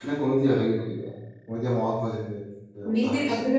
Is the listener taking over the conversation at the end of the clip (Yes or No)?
Yes